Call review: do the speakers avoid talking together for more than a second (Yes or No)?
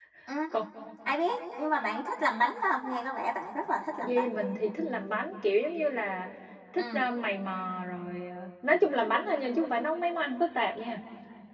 Yes